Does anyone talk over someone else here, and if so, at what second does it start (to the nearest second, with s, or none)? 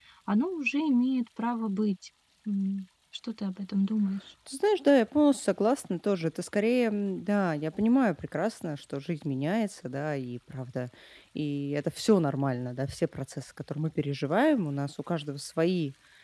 none